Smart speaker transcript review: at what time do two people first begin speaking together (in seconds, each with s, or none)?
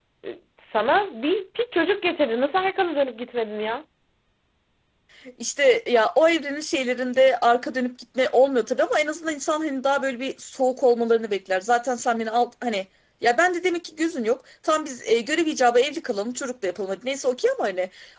none